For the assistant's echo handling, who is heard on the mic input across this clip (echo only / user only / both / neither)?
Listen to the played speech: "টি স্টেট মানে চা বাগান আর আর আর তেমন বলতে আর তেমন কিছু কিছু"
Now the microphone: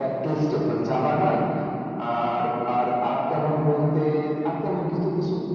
echo only